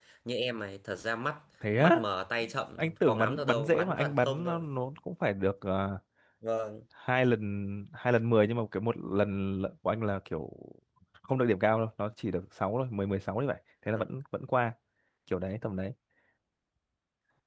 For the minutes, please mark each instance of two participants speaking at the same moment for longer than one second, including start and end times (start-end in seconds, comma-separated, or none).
2.8-4.7